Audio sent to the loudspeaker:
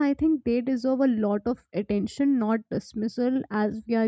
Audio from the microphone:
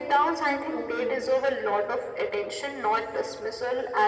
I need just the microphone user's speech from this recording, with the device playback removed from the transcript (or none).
through openness.